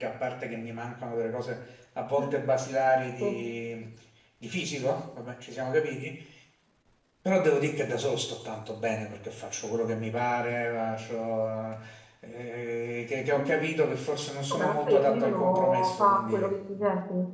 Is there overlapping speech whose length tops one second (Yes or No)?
Yes